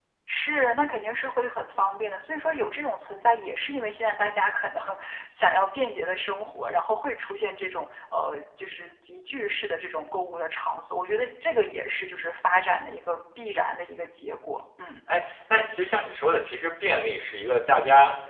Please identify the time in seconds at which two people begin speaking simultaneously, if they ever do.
none

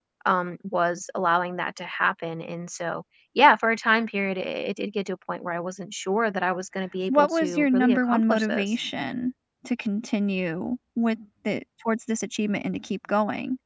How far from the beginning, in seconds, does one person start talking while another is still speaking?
7.1 s

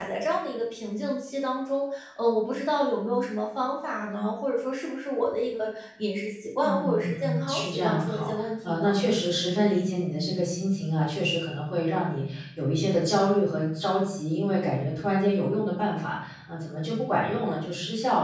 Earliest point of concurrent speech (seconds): 6.6 s

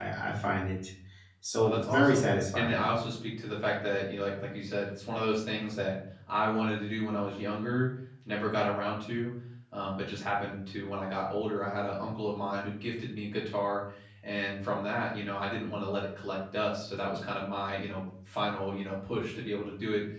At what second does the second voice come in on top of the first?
1.6 s

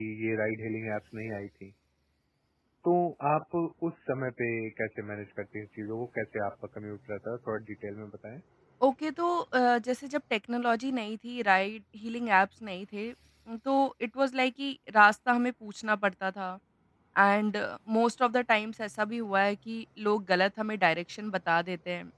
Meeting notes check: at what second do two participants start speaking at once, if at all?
none

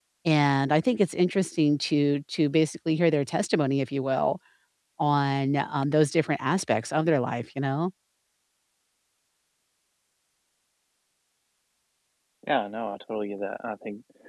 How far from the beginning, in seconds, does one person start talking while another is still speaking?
none

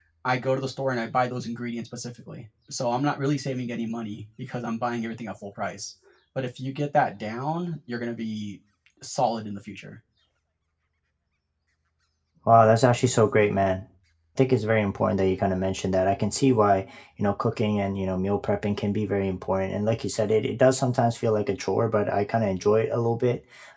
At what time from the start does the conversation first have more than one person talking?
none

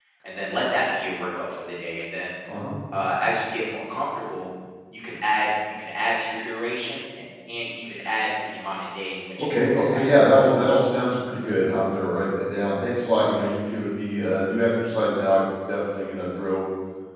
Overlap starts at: 9.4 s

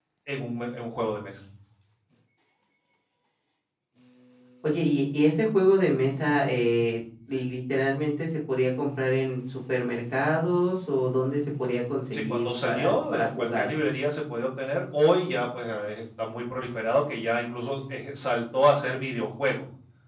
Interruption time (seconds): 12.1 s

